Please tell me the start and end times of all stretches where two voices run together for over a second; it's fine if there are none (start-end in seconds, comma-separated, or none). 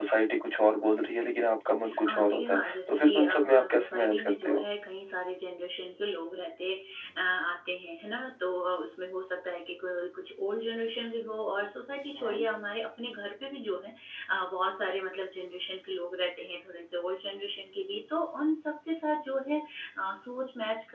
2.0-4.6